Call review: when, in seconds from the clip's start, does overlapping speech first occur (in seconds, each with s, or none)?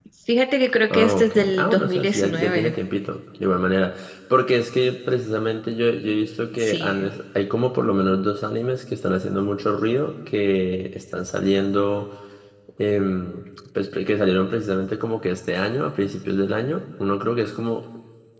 0.9 s